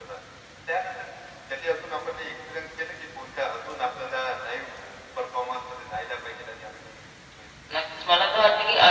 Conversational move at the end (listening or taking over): taking over